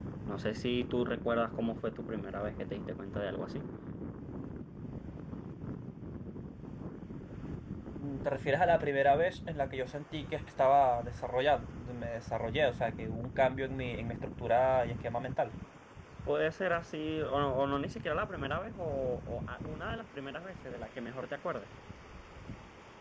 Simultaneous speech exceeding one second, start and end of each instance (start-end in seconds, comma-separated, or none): none